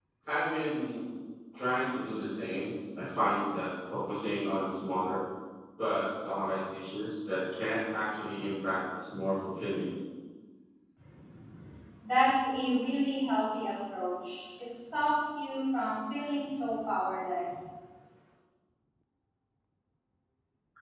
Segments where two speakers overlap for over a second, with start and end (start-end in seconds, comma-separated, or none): none